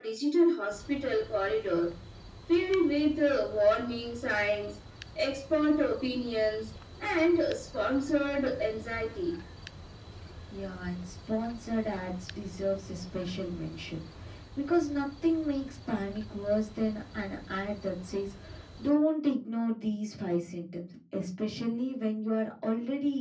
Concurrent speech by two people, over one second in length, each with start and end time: none

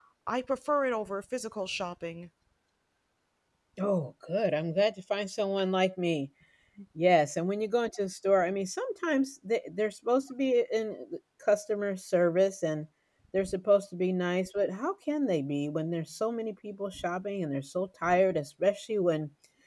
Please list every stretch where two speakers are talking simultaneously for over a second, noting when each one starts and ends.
none

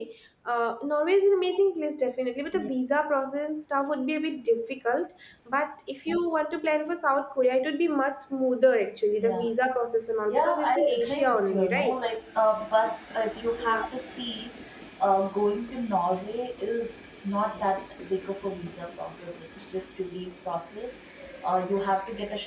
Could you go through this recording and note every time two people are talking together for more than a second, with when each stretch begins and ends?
10.3-12.0

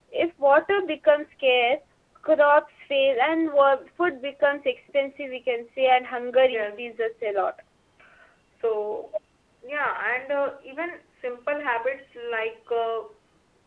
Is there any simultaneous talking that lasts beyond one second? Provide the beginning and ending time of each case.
none

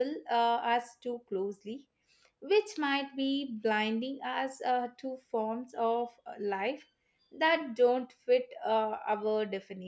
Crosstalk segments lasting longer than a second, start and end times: none

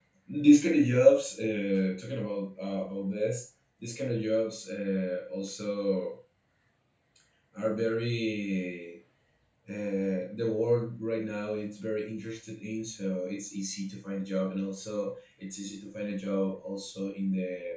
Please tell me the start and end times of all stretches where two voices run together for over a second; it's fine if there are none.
none

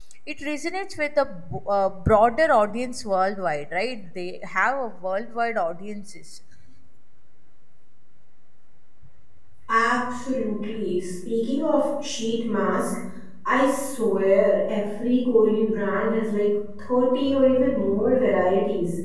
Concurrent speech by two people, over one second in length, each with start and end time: none

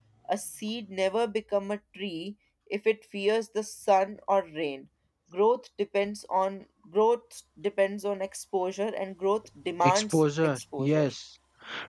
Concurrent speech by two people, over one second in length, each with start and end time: 9.8-11.1

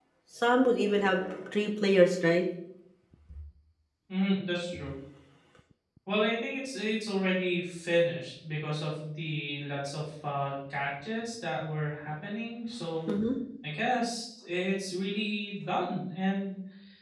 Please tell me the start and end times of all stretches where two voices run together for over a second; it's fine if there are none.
none

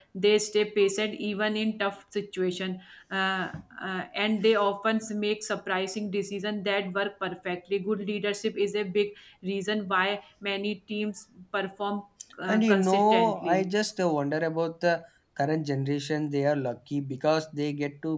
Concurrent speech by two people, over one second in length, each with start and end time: 12.5-13.7

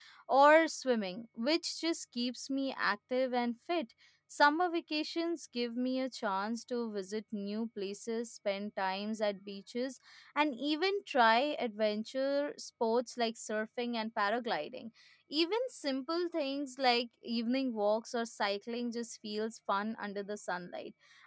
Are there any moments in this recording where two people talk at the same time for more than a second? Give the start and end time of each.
none

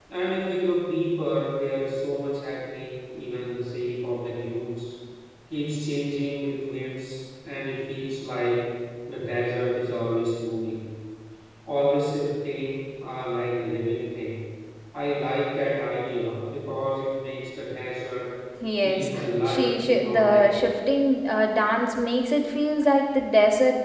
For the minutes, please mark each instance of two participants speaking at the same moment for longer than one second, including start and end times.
18.8-20.6

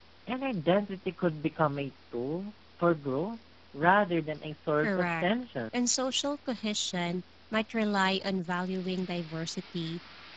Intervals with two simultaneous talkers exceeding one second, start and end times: none

